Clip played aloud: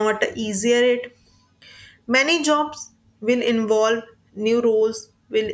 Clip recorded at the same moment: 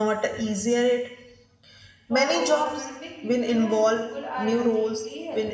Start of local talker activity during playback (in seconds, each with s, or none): 2.0 s